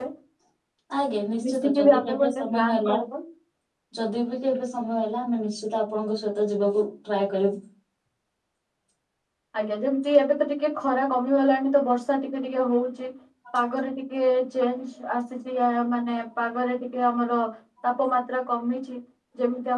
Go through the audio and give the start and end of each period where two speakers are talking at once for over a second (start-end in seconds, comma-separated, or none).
1.5-3.0